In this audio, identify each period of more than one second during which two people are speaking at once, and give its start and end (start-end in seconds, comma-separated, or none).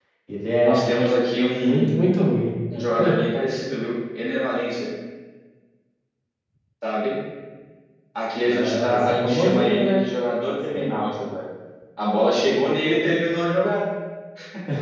8.4-10.0